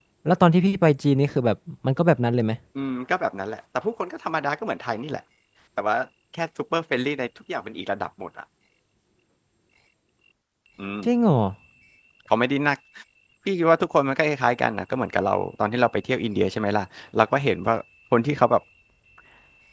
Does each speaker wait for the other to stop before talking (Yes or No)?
Yes